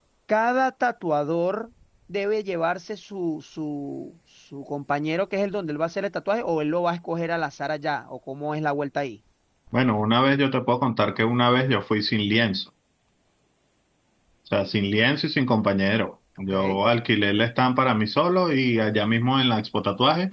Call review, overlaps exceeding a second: none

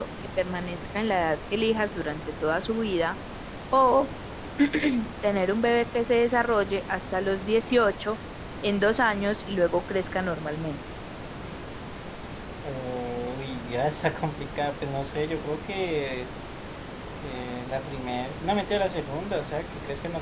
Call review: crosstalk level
none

